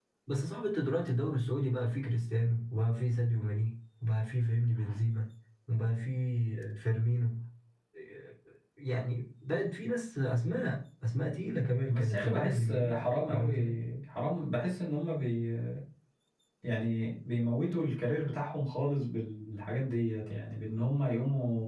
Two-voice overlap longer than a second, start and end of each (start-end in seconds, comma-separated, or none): 11.9-13.7